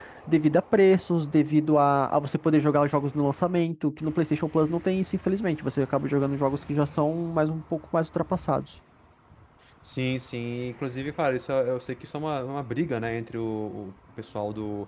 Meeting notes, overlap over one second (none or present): none